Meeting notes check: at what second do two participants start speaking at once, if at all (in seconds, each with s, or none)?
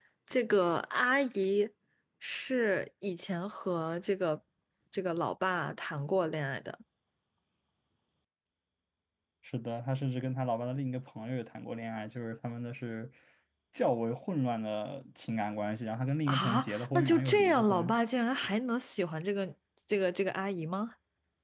16.3 s